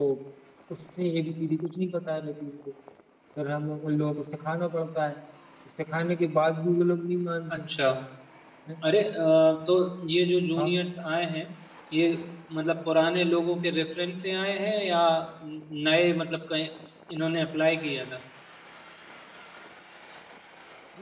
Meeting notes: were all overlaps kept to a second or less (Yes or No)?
Yes